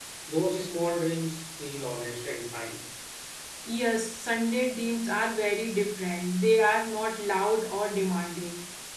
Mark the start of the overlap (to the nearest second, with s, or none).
none